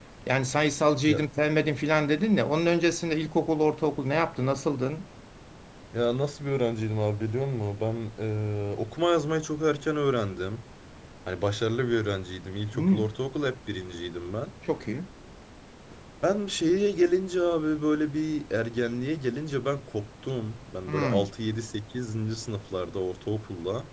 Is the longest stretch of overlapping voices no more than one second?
Yes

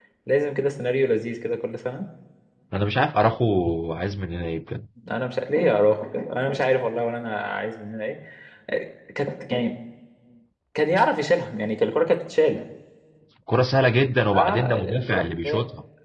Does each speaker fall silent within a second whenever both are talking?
No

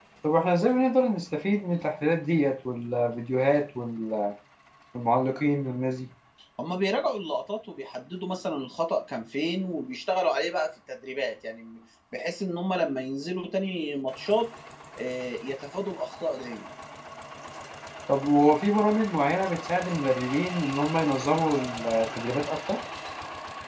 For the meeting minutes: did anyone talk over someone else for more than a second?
No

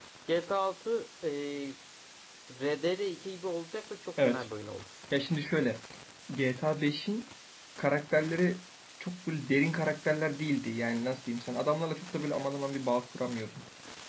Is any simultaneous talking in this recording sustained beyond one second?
No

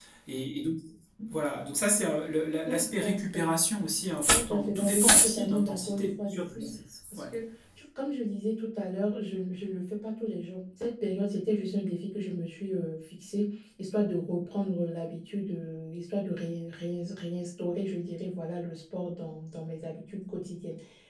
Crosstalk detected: Yes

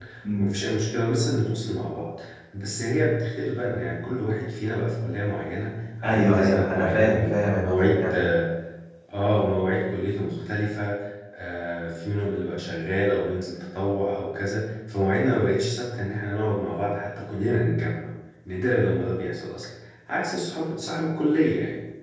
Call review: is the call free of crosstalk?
No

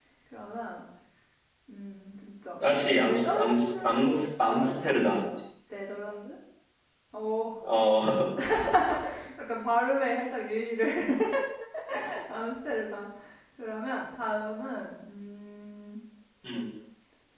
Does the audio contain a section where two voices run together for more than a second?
Yes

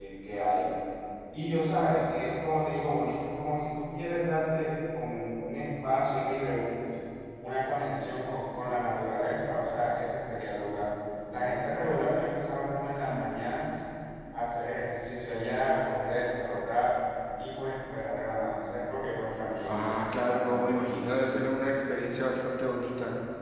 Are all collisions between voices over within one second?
No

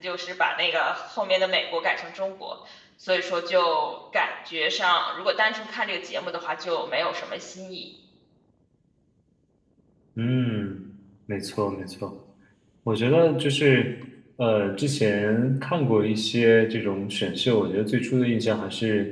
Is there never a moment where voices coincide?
Yes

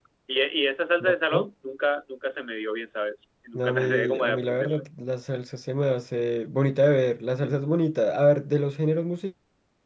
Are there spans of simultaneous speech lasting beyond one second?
Yes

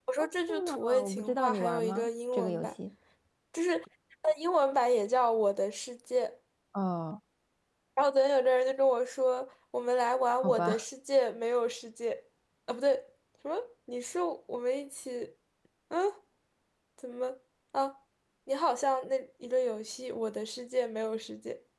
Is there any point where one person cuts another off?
Yes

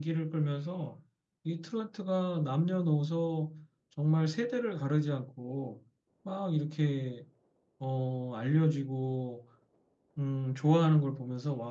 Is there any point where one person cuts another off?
No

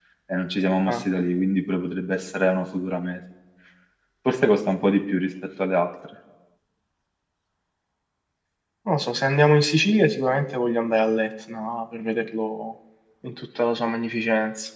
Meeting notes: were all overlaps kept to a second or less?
Yes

